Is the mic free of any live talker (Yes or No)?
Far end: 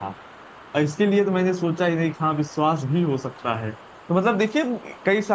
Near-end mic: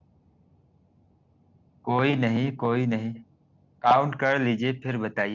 No